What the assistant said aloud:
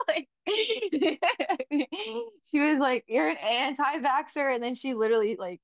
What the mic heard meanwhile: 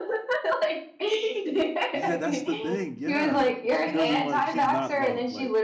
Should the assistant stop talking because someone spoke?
Yes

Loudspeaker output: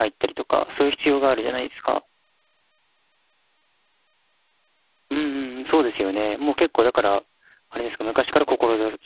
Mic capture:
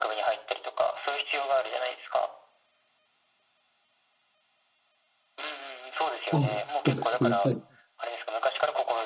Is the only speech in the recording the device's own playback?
No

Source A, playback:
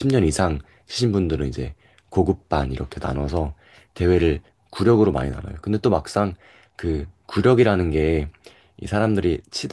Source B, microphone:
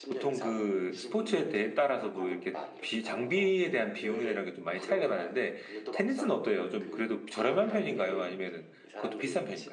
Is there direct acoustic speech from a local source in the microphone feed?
Yes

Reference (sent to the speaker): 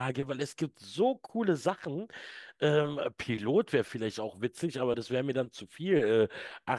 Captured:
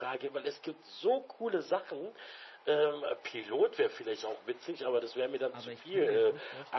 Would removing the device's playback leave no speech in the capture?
No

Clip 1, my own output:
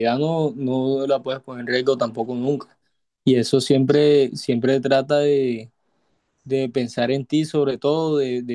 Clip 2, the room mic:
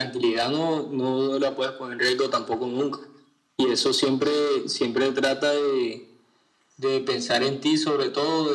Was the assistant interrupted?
No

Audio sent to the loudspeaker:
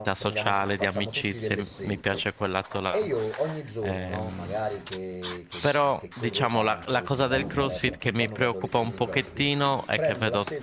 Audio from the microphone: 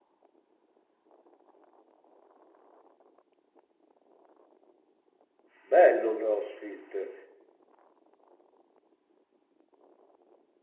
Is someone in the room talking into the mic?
Yes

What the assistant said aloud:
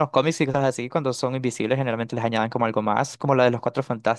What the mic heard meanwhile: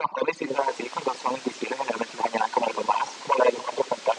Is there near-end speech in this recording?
No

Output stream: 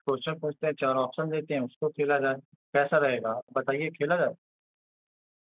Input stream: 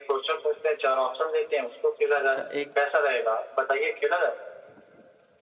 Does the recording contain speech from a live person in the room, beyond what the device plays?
Yes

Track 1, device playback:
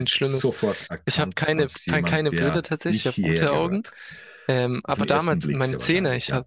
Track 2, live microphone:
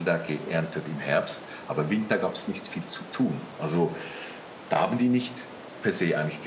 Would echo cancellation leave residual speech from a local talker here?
Yes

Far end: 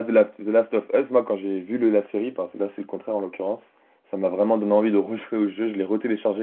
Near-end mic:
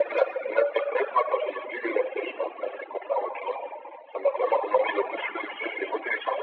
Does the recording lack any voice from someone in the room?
Yes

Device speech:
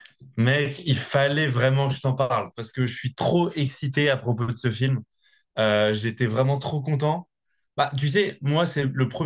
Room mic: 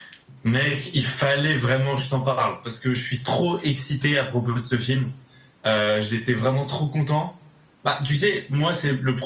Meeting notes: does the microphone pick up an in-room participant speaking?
No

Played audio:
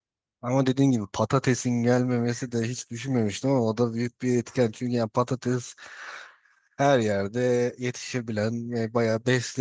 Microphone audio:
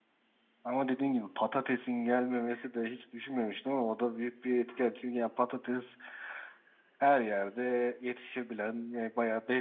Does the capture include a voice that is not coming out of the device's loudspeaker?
No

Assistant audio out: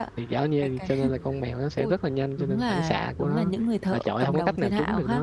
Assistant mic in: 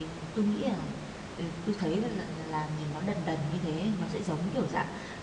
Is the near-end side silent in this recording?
No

